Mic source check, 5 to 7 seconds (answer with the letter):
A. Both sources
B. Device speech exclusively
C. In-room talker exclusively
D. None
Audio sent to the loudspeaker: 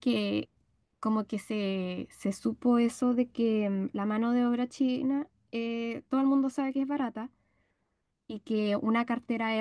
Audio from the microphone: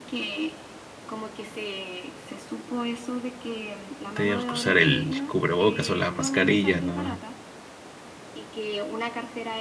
A